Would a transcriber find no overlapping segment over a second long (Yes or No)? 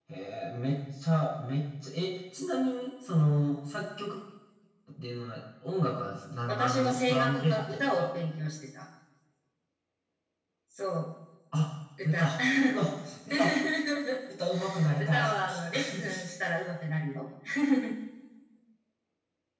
No